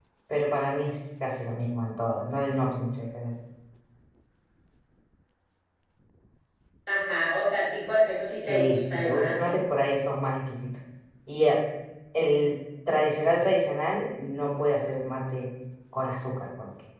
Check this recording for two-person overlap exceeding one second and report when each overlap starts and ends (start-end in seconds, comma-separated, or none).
8.2-9.6